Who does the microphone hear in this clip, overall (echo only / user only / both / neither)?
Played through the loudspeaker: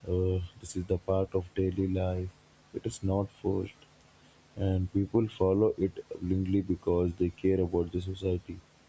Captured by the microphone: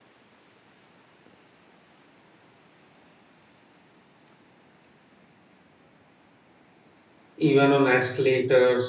user only